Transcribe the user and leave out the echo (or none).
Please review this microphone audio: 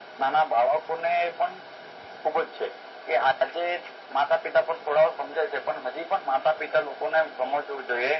none